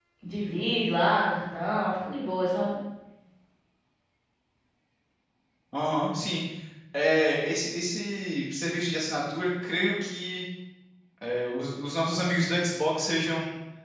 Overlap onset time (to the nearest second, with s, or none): none